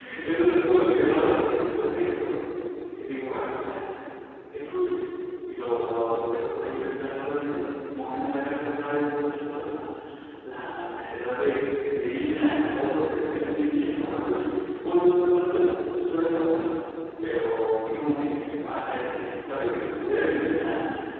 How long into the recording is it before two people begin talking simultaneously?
none

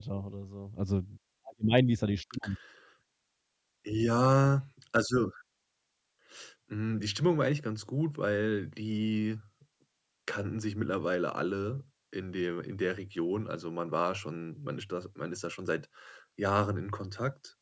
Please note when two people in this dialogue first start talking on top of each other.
none

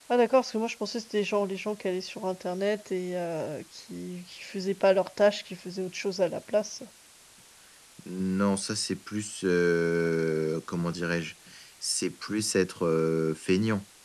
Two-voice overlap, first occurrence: none

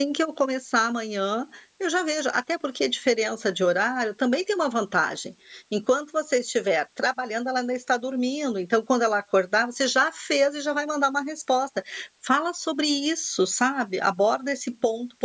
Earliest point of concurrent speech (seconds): none

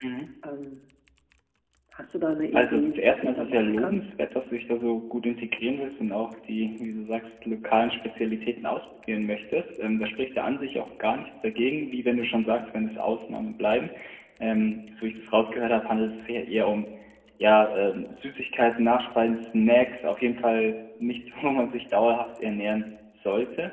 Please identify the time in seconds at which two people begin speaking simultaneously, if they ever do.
2.5 s

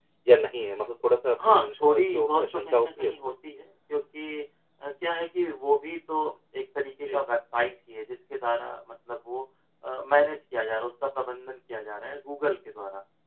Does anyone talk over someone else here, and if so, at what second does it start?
1.6 s

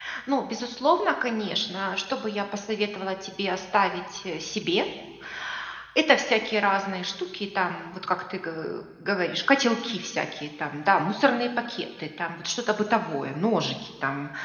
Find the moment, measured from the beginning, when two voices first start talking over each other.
none

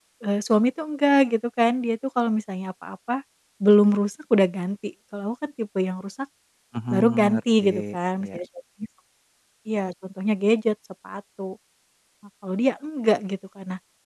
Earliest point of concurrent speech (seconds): 6.9 s

